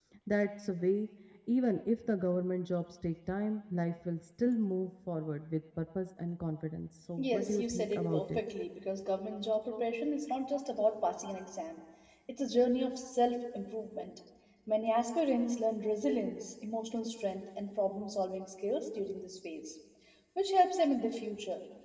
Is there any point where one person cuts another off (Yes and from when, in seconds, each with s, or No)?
Yes, from 7.2 s